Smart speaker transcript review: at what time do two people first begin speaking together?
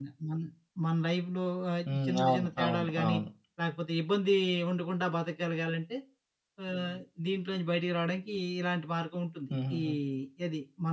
1.9 s

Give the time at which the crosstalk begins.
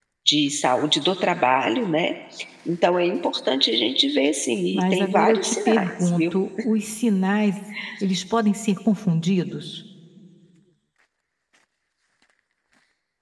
4.7 s

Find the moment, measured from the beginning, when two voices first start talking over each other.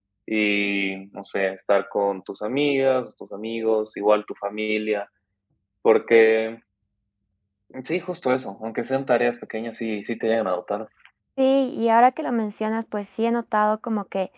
none

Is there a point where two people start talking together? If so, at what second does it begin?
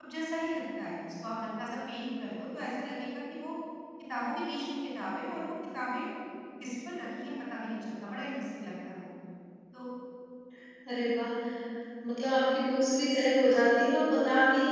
none

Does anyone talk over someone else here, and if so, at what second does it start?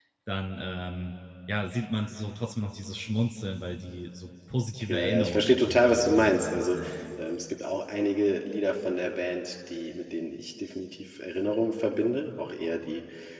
4.8 s

